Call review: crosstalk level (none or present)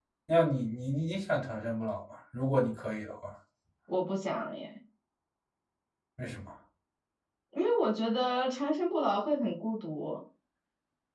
none